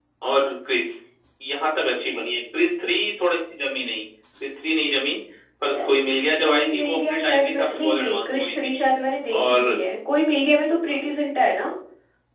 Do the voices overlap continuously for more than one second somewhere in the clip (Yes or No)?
Yes